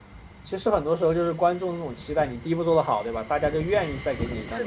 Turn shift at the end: No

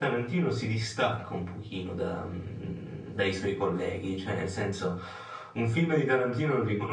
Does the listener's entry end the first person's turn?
No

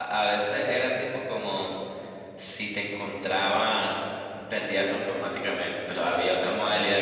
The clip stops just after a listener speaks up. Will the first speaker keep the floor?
Yes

